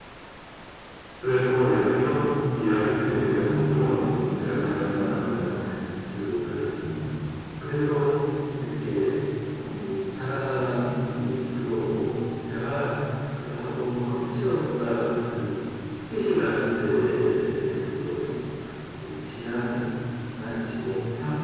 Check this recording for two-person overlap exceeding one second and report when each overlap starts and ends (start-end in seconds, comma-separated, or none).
3.0-5.5